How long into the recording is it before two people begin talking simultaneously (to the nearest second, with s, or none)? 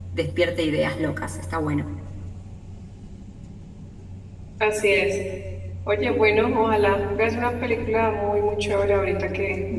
none